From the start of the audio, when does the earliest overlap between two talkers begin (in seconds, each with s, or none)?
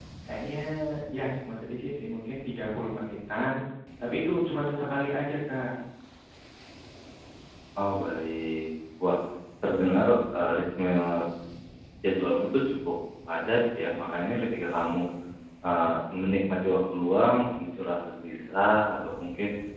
none